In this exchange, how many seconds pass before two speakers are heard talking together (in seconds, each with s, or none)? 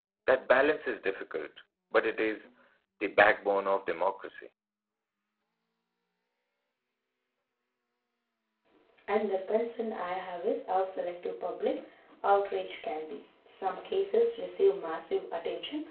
none